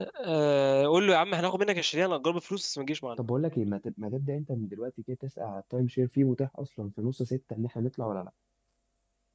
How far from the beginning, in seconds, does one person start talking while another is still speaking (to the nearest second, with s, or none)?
none